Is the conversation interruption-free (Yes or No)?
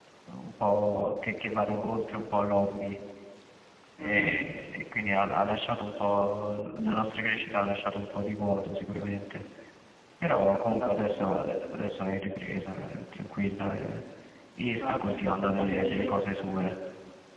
No